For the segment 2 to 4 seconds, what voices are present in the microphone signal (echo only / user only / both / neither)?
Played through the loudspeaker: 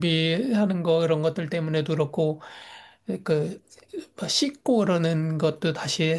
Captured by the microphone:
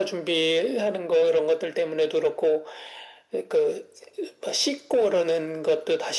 echo only